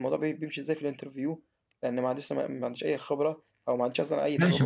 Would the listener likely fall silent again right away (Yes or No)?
No